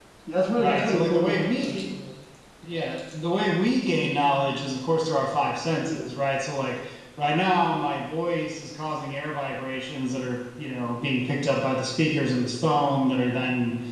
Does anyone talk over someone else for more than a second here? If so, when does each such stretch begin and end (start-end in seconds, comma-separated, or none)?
0.6-1.8